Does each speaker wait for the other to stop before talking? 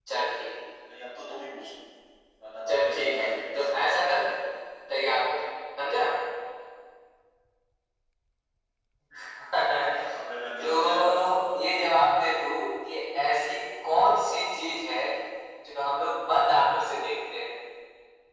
No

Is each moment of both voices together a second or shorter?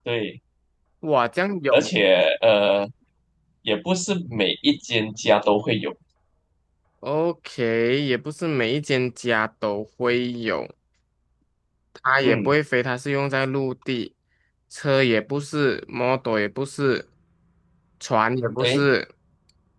Yes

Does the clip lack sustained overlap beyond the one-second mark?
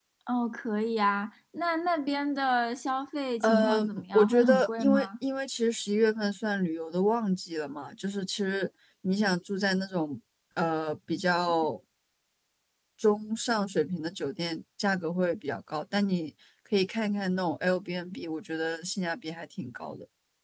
No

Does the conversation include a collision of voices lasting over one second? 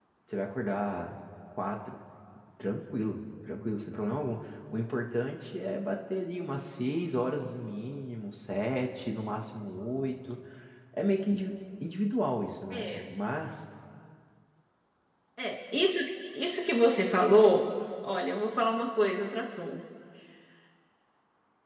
No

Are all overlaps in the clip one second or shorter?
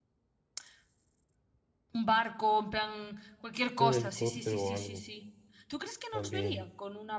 No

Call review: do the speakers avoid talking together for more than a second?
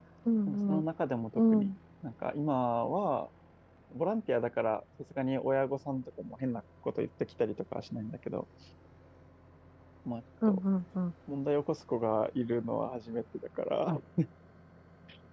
Yes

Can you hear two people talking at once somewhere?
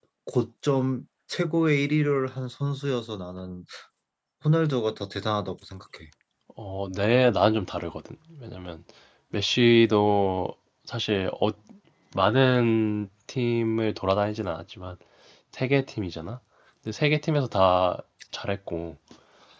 No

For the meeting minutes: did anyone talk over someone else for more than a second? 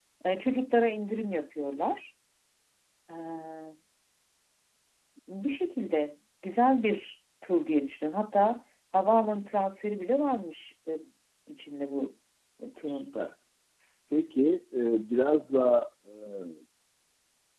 No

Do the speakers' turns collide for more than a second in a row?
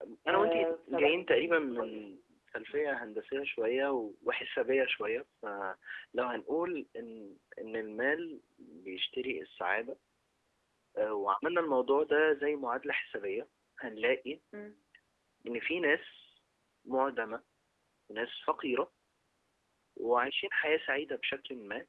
Yes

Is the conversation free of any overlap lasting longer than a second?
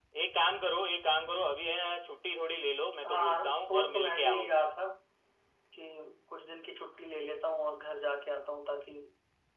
No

